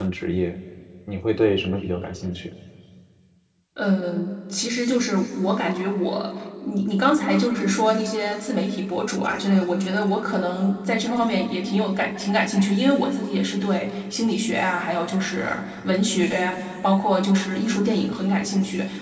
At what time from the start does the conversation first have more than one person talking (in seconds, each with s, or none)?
none